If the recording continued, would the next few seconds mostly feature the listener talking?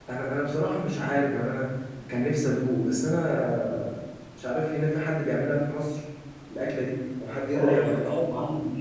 Yes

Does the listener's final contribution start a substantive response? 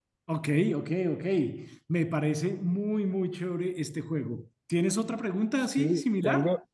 Yes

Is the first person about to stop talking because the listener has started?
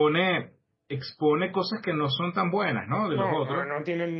Yes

